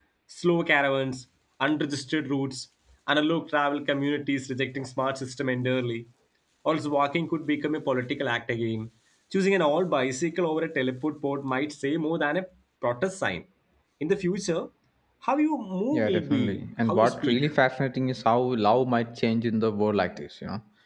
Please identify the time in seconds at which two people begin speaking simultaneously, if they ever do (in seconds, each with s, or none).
15.9 s